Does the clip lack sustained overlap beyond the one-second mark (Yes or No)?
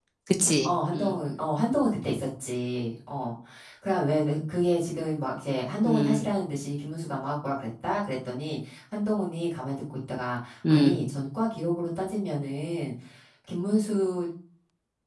Yes